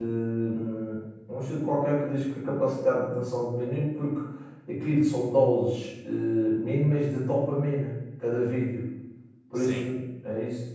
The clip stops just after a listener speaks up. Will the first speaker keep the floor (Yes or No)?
Yes